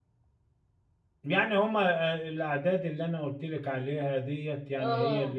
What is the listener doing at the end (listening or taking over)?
listening